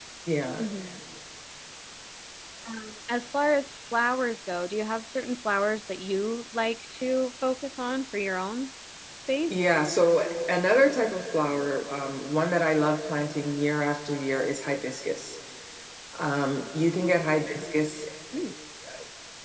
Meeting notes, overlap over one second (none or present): none